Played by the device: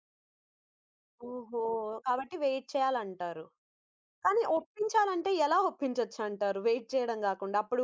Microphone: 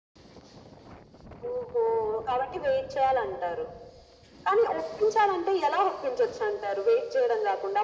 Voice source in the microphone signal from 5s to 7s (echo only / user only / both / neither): echo only